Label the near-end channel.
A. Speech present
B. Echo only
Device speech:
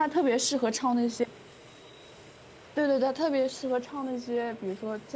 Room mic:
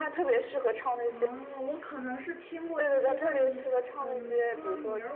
A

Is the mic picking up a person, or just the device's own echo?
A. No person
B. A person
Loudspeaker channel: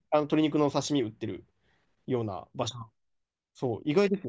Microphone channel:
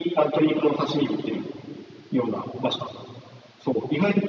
A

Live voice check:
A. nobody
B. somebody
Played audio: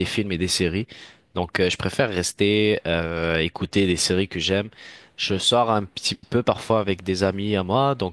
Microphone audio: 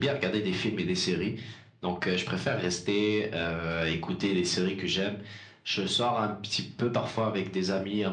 A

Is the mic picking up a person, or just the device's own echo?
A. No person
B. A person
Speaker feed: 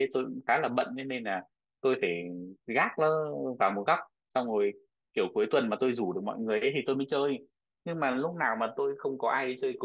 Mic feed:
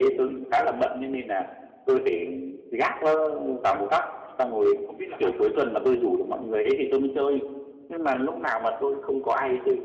B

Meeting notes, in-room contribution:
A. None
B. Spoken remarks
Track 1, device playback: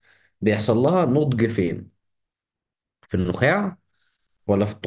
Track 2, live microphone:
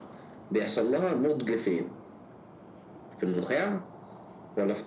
A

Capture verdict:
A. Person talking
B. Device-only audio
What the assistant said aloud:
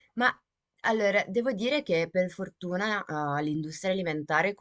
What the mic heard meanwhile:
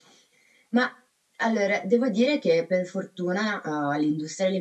B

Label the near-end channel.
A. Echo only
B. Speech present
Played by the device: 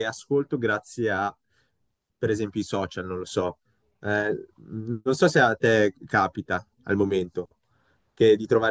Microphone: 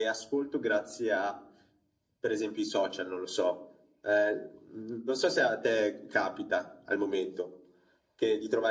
A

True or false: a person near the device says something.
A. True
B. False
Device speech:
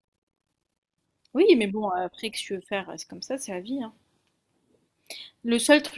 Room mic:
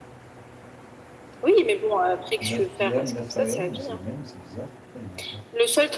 A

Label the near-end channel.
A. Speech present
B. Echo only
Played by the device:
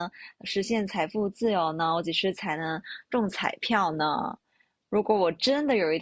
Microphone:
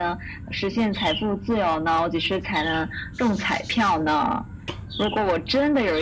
B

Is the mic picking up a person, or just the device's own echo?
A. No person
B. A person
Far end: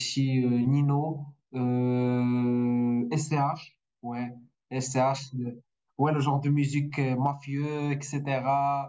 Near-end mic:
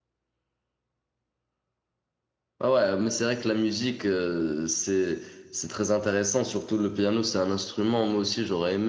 B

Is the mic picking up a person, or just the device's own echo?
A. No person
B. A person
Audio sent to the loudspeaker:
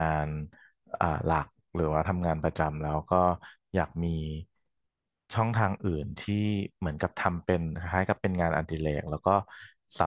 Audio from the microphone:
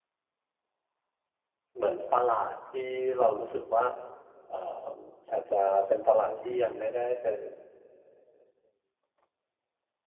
B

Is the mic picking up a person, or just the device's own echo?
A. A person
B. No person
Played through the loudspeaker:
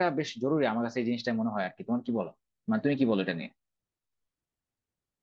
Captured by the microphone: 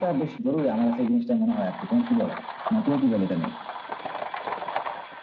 B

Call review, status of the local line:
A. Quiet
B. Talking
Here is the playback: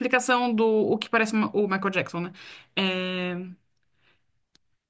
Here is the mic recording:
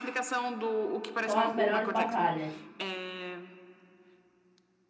B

